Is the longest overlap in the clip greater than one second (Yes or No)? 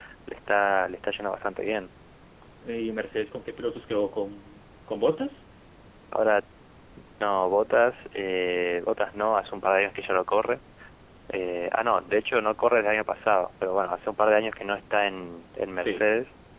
No